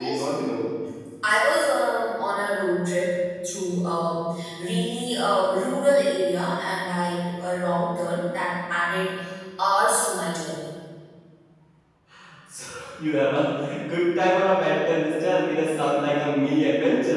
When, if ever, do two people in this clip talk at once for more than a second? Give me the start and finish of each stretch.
none

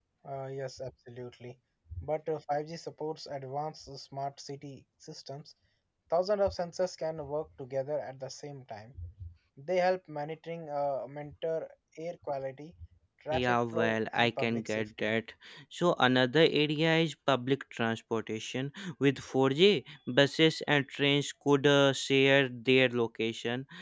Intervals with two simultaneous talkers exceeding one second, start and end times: 13.3-15.1

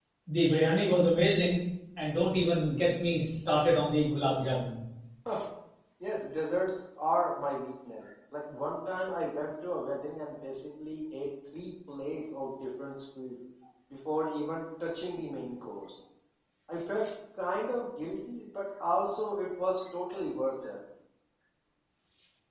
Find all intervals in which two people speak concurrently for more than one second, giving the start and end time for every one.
none

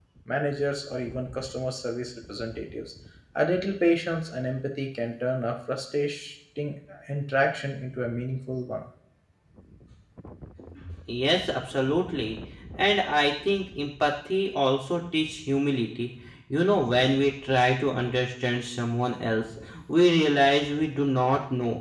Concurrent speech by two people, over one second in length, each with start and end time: none

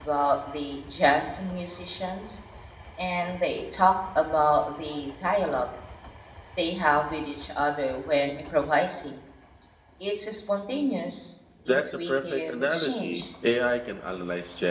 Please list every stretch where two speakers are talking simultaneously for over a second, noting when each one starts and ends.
11.7-13.2

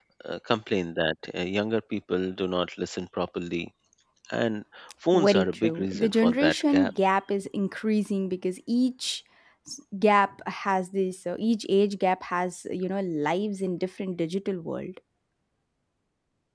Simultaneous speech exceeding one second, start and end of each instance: 5.1-6.9

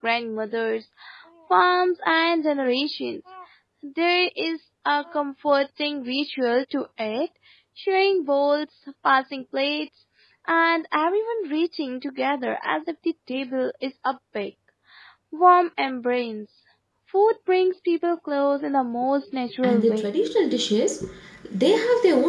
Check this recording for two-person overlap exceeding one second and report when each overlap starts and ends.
none

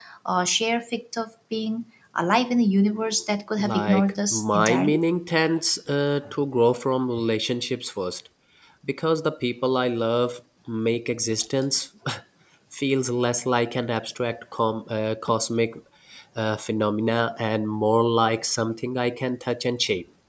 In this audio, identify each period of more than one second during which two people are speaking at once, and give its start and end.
3.6-5.0

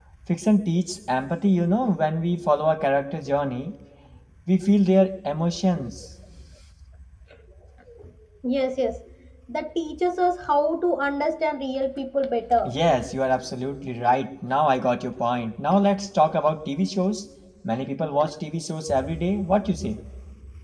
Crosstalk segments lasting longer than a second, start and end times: none

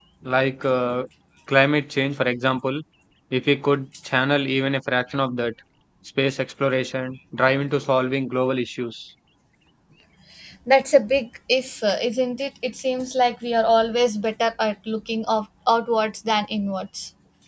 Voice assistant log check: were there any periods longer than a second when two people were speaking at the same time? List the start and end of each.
none

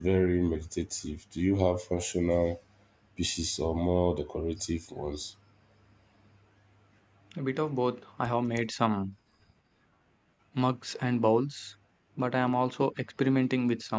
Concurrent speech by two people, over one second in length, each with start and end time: none

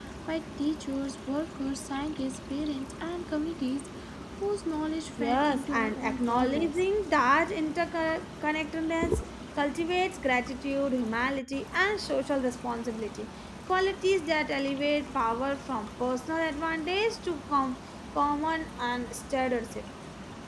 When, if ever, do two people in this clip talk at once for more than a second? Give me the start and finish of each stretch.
5.2-6.8

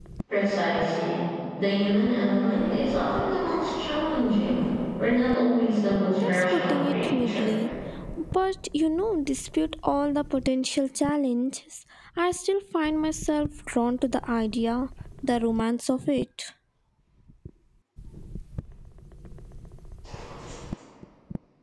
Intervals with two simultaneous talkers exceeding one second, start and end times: 6.1-7.5

